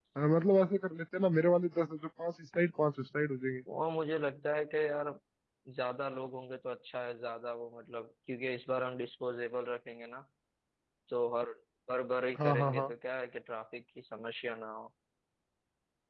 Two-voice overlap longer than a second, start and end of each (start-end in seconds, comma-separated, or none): none